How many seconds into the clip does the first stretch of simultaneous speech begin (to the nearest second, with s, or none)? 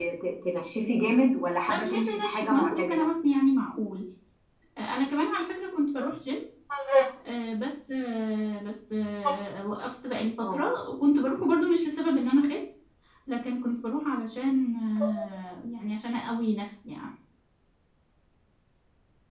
2 s